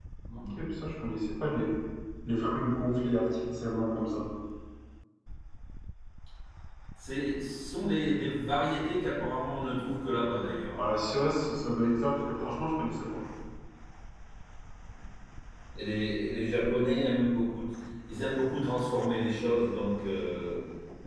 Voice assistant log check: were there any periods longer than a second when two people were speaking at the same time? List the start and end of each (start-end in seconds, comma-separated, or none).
none